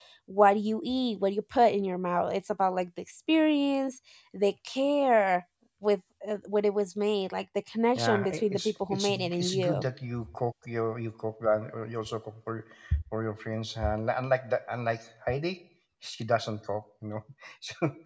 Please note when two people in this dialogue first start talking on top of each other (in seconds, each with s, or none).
8.0 s